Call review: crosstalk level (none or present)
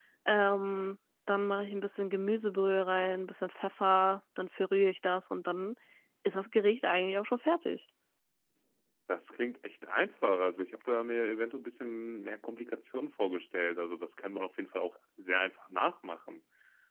none